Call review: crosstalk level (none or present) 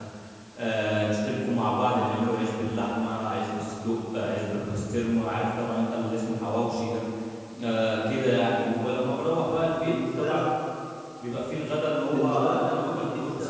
present